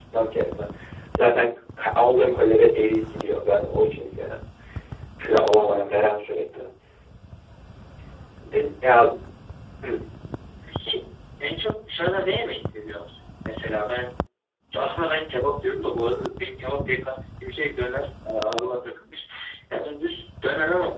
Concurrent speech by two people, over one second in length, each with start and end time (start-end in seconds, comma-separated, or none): none